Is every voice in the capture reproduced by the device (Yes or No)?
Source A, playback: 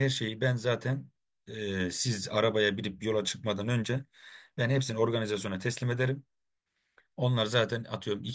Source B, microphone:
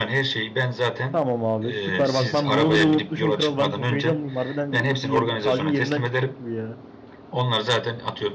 No